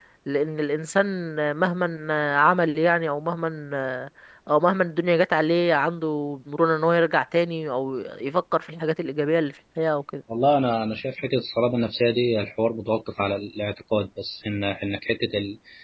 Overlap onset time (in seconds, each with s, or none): none